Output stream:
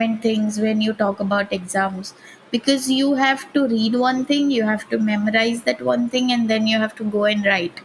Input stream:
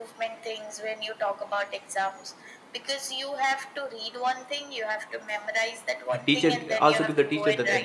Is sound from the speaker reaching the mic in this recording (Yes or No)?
Yes